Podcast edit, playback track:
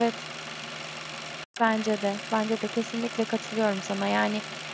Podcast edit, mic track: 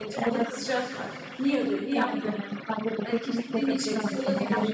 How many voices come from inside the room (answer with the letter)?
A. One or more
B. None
A